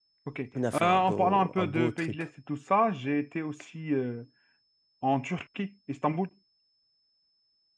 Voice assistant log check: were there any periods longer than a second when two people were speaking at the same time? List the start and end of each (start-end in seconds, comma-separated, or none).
0.7-2.2